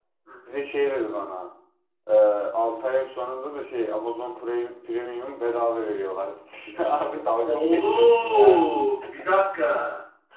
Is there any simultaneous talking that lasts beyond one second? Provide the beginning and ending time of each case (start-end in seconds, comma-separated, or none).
7.4-8.6